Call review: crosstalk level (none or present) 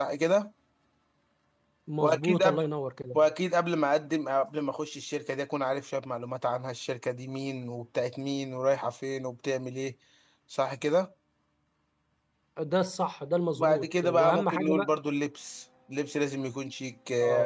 present